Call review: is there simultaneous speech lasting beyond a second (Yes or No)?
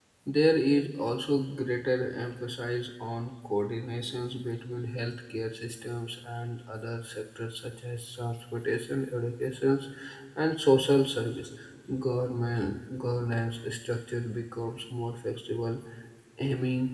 No